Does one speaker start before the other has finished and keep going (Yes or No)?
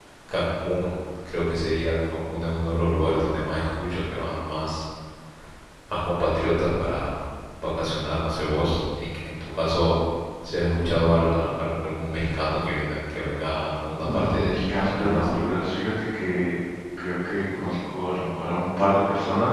Yes